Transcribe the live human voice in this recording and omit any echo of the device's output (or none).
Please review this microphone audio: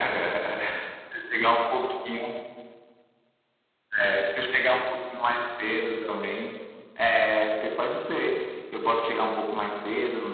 none